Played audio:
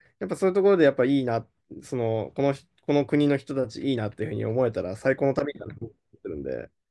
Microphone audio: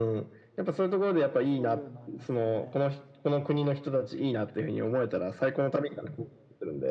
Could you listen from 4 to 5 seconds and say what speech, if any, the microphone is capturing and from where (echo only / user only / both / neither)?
echo only